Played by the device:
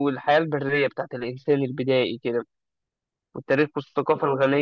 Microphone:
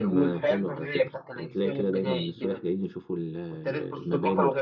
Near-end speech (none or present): present